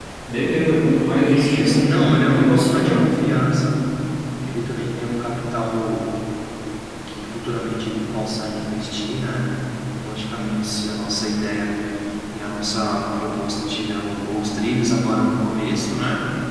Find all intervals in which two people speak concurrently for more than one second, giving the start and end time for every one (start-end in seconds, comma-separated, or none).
1.4-3.0